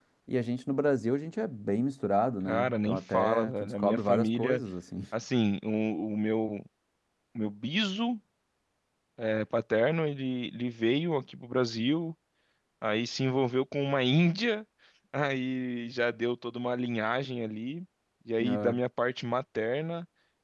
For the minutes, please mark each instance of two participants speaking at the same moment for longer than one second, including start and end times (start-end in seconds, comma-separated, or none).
2.5-4.6